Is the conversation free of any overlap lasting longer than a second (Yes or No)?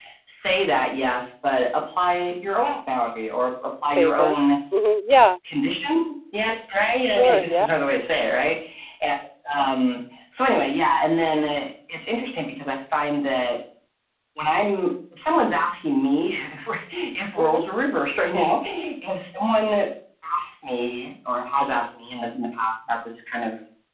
Yes